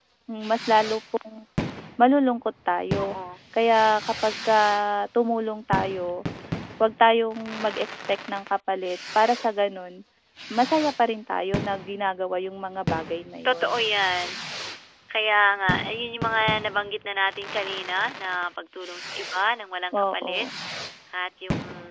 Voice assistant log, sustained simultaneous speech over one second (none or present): none